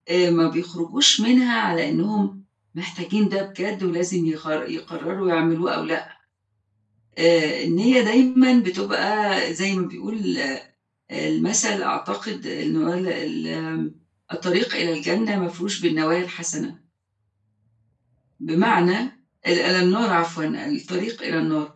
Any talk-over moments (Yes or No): No